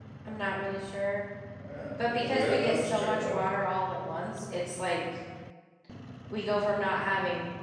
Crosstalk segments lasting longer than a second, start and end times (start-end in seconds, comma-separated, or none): 2.0-3.4